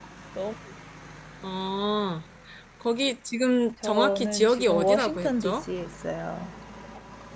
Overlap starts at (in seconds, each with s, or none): 3.8 s